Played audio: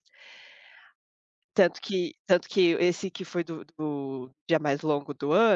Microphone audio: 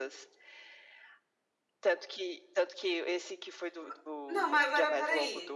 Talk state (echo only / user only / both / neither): both